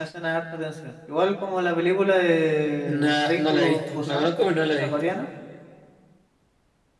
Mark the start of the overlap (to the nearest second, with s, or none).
3 s